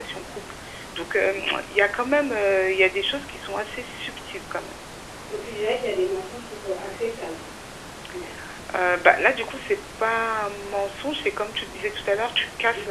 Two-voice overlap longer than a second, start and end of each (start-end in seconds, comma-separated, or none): none